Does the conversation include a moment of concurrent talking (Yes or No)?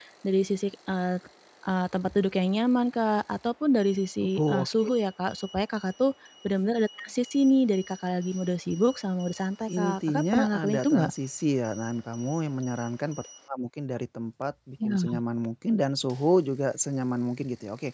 Yes